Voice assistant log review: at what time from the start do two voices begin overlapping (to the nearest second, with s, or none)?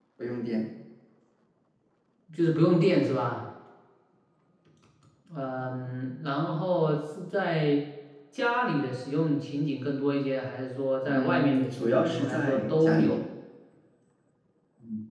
11 s